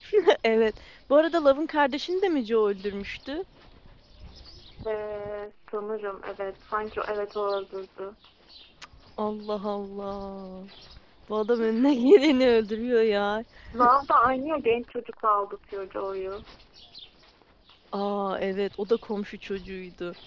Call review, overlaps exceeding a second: none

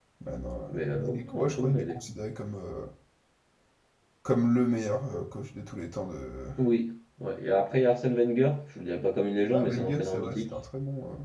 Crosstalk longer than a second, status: present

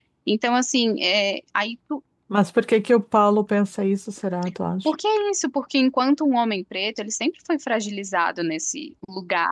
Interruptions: none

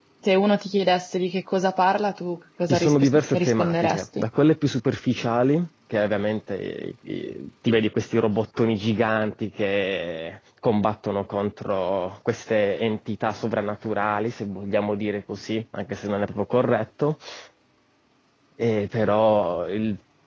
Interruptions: present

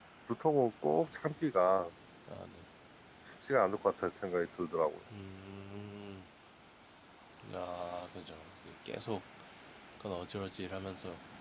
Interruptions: none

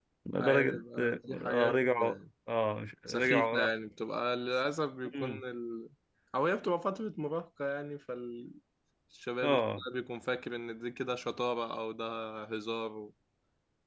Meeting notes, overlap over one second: present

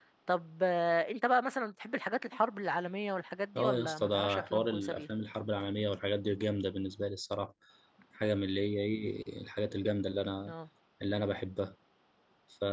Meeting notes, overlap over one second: present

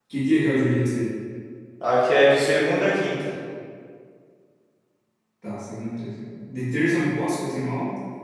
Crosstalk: none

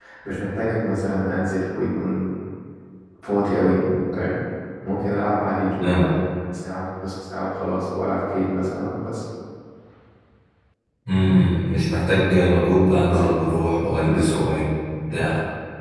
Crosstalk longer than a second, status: none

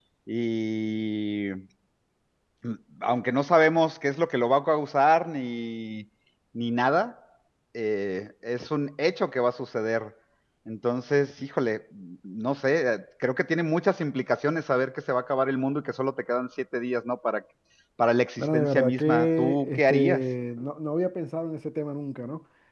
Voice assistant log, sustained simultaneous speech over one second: present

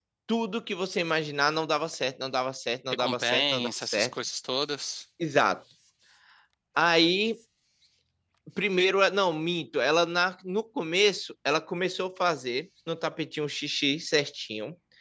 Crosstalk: present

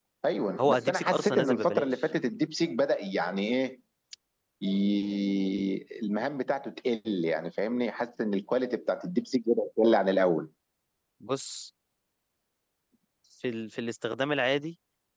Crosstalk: present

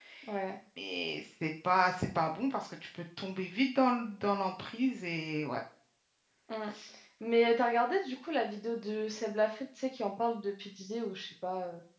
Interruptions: none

